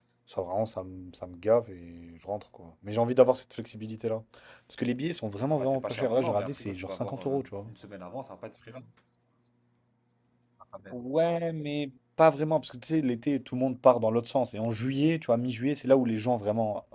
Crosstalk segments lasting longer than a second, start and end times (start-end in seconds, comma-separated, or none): 5.6-7.5